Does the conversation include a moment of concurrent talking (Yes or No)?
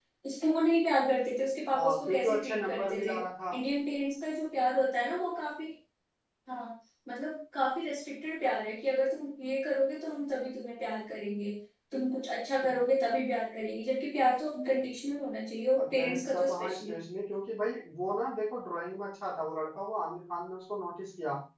Yes